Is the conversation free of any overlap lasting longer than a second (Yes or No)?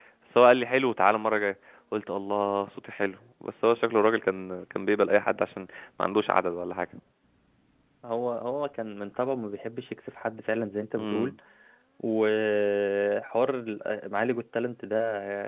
Yes